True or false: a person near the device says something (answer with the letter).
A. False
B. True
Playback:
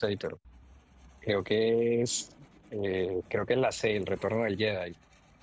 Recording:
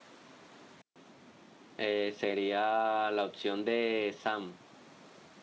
B